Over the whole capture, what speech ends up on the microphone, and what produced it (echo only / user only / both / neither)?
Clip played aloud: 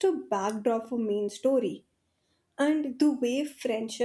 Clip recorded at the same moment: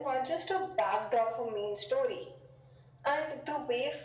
echo only